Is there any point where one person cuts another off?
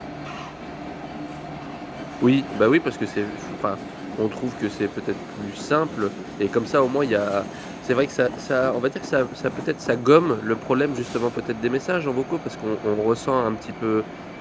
No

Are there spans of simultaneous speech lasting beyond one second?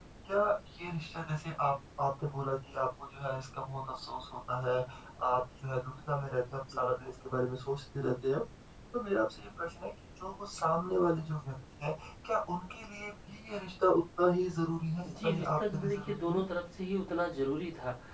Yes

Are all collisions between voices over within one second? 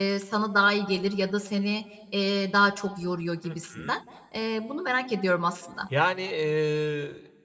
Yes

